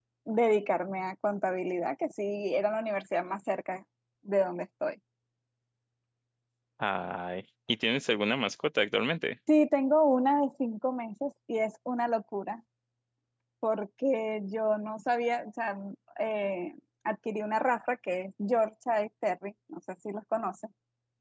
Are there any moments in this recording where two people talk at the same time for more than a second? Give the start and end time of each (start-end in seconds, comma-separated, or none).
none